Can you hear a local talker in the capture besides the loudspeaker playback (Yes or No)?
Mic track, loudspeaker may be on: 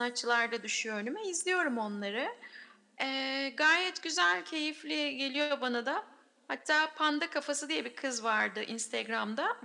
No